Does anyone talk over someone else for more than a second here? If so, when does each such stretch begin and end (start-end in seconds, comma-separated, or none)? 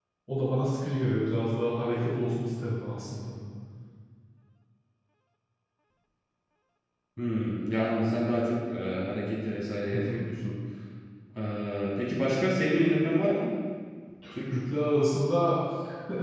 none